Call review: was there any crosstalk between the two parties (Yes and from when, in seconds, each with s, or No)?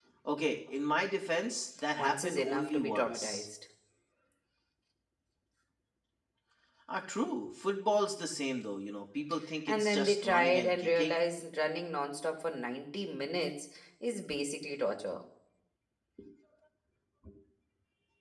Yes, from 2.0 s